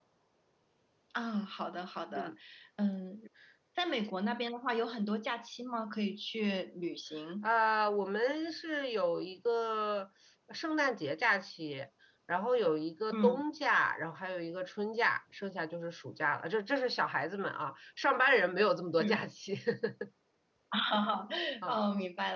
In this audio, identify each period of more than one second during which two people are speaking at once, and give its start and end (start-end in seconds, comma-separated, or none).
none